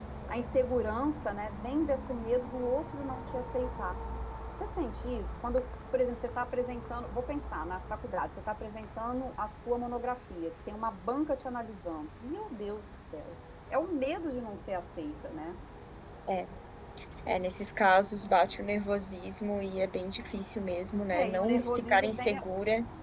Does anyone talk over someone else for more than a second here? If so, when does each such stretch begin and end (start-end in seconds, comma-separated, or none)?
21.1-22.4